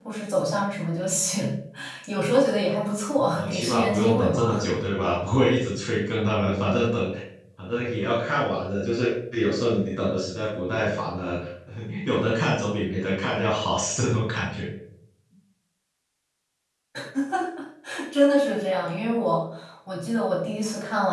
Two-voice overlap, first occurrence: 3.3 s

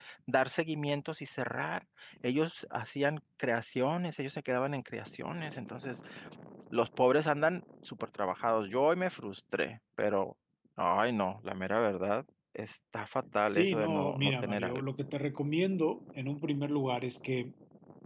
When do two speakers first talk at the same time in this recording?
13.5 s

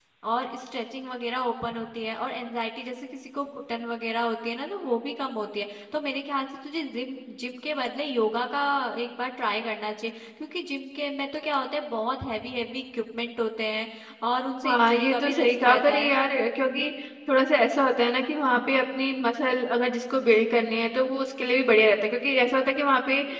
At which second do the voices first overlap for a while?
14.6 s

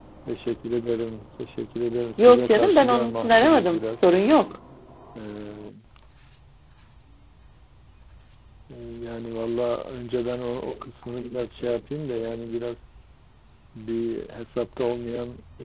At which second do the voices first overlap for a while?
2.2 s

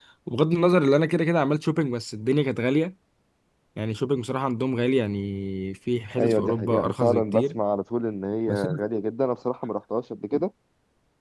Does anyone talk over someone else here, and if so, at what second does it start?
6.2 s

